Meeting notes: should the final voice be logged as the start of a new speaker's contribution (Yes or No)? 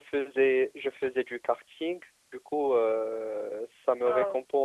No